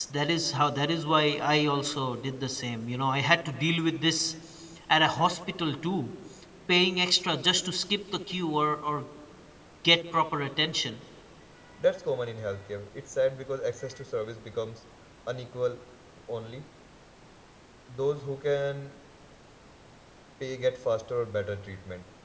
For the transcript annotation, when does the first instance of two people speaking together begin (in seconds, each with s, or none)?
none